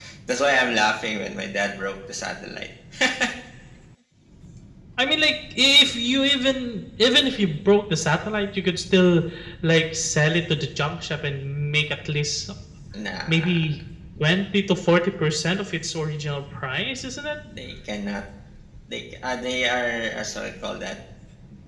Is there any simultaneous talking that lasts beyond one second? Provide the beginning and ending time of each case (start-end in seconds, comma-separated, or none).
none